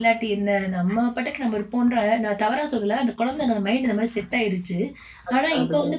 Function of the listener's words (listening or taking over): listening